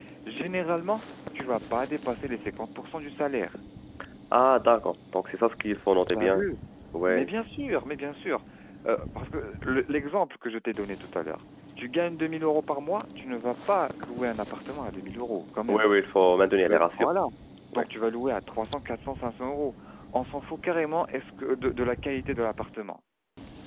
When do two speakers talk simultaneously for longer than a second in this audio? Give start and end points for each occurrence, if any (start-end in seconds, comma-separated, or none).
none